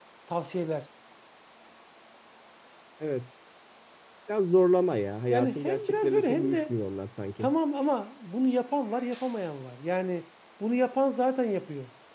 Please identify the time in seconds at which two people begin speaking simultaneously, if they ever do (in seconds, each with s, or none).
5.3 s